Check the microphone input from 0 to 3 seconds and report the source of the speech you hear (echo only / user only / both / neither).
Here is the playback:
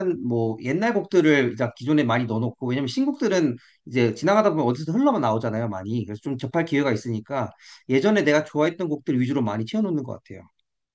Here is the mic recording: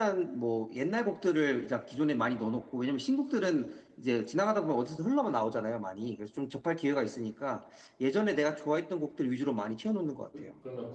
echo only